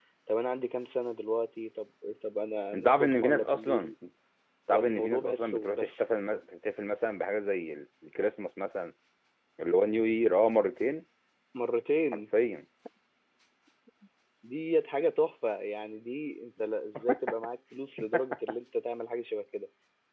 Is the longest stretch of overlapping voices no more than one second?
No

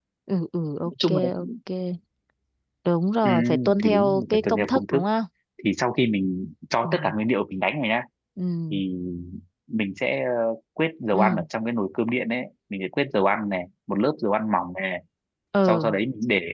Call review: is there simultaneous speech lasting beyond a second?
Yes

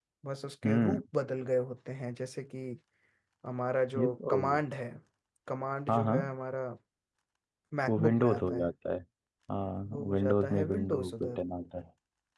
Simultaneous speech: Yes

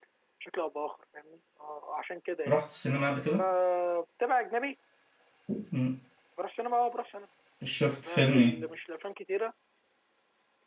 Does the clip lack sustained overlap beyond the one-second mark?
Yes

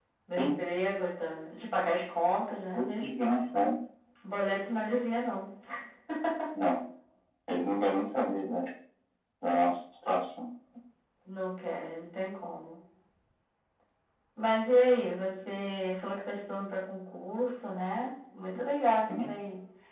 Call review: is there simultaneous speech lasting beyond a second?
No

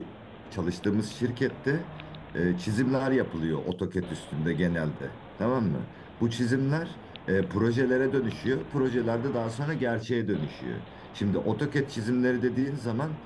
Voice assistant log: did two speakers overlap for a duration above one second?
No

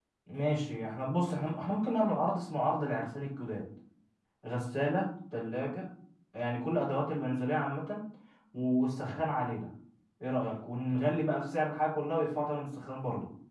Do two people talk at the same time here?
No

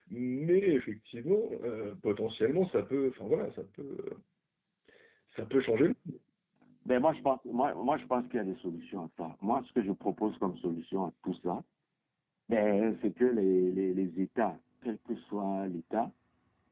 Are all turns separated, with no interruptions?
Yes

